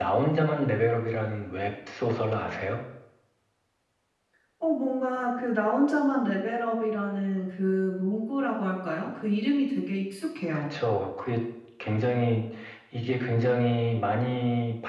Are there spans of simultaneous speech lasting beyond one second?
No

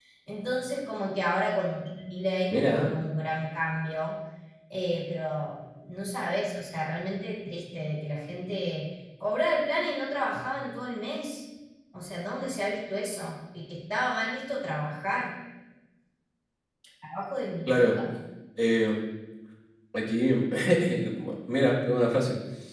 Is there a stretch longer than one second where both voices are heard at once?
No

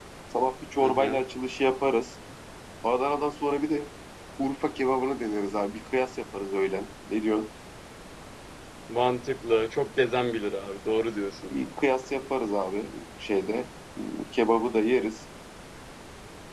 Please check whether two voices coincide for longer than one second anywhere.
No

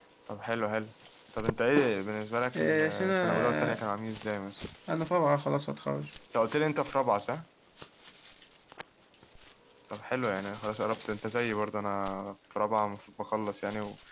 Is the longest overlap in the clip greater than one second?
Yes, from 2.5 s

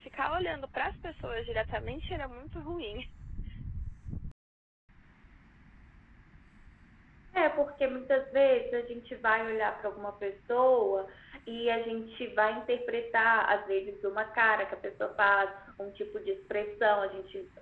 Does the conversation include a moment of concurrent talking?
No

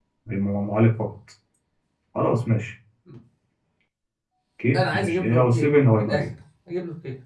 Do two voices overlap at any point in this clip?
Yes, from 4.7 s

